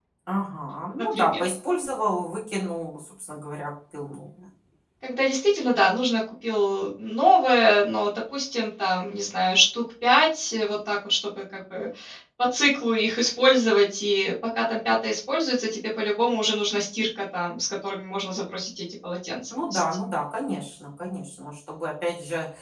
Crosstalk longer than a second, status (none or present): none